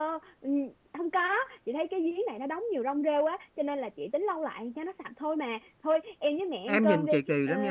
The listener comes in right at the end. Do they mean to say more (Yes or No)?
Yes